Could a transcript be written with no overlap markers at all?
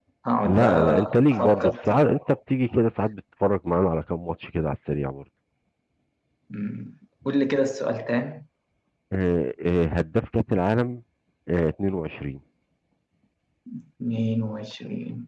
No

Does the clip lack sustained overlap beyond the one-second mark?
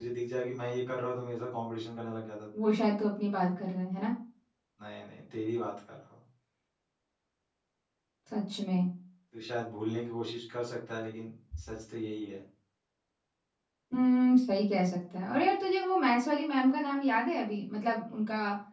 Yes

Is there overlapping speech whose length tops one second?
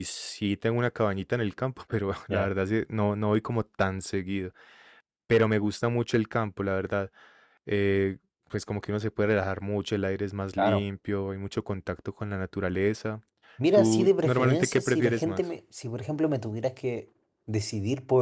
Yes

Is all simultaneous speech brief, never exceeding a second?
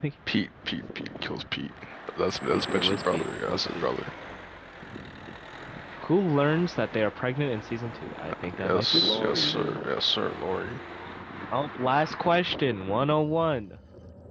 No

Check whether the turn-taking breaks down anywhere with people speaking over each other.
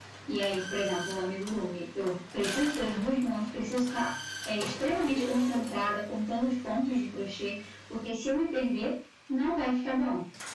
No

